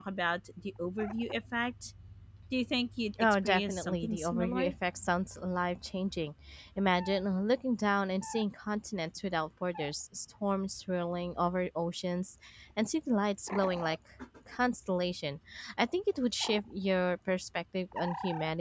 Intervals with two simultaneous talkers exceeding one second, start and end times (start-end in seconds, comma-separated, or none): 3.2-4.7